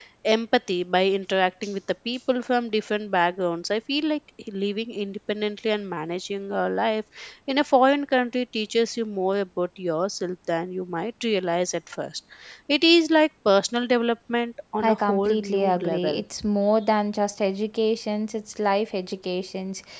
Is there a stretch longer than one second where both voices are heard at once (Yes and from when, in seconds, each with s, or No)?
Yes, from 14.8 s